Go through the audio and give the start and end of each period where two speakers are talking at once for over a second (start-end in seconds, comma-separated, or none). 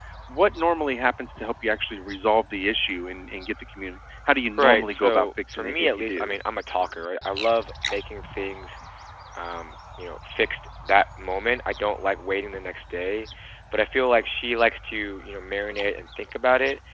4.6-6.3